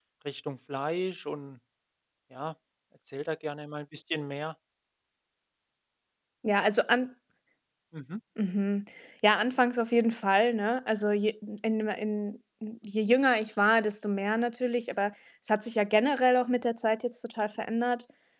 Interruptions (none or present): none